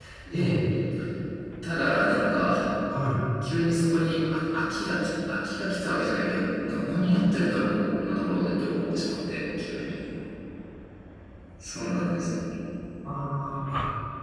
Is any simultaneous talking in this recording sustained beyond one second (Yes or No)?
No